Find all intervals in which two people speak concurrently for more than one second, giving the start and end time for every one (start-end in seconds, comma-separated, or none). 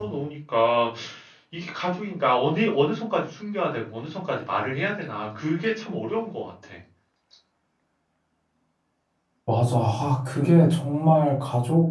none